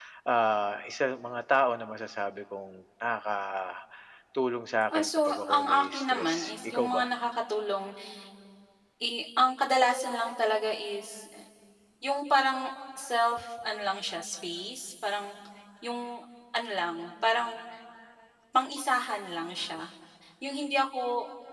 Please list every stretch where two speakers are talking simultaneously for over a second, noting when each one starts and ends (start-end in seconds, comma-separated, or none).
4.9-7.0